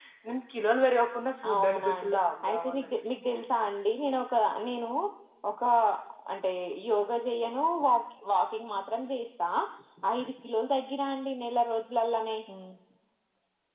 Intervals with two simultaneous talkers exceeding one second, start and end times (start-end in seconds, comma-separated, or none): 1.5-2.9